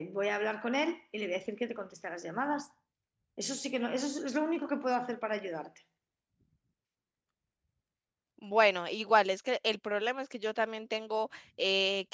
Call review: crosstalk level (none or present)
none